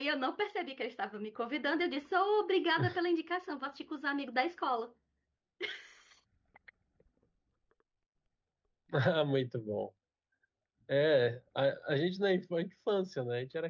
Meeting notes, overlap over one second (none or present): none